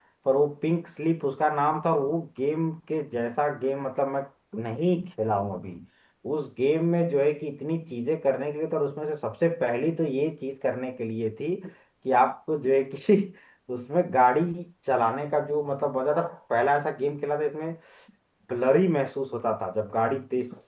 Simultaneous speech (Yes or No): No